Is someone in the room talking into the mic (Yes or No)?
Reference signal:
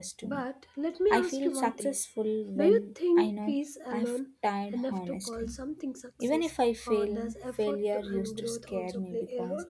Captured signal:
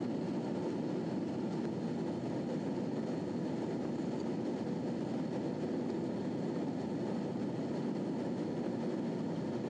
No